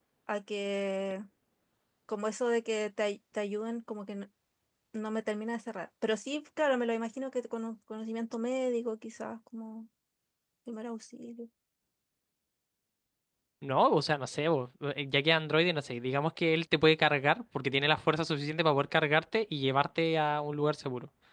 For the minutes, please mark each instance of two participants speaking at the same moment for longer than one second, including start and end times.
none

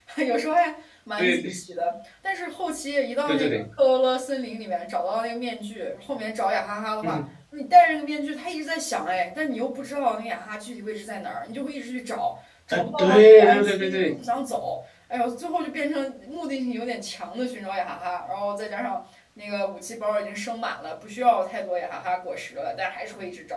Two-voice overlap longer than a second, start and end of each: 12.7-14.1

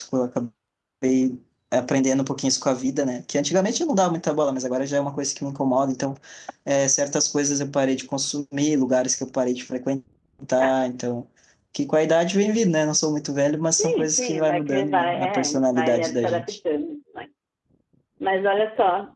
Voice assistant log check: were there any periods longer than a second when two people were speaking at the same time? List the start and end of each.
13.8-16.6

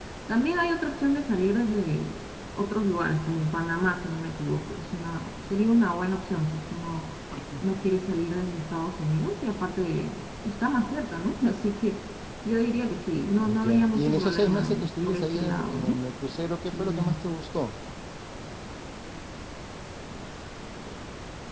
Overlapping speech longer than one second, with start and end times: 13.6-16.0

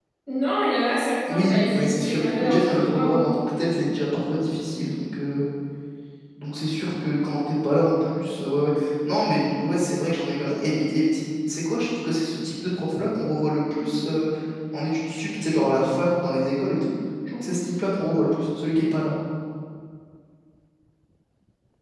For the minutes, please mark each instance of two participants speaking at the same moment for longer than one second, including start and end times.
1.3-3.3

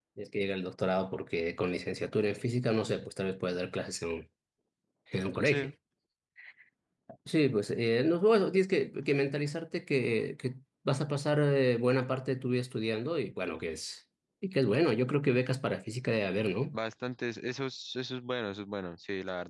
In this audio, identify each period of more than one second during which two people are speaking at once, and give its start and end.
none

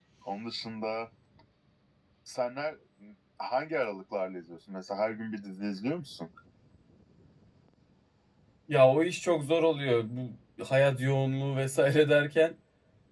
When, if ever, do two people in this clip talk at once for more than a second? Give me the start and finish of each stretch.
none

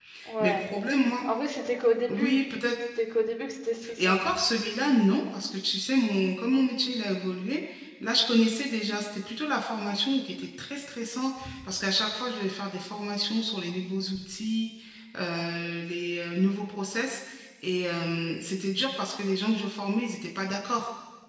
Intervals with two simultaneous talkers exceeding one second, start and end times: none

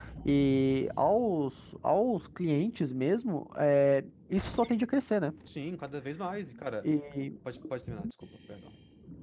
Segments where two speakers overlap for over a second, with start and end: none

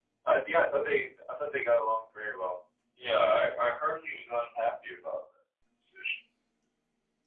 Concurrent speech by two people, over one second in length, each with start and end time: none

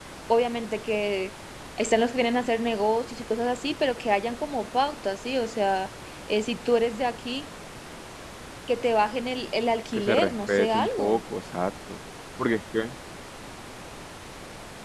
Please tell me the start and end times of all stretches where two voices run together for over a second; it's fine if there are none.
9.9-11.2

